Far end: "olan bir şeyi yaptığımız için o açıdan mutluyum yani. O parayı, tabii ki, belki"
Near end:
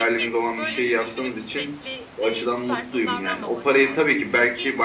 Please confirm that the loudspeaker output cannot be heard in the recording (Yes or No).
No